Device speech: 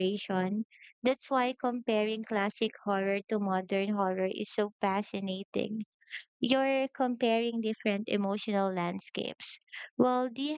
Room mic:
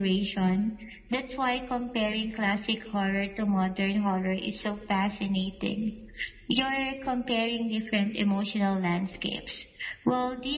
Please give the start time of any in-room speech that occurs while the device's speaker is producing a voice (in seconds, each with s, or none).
none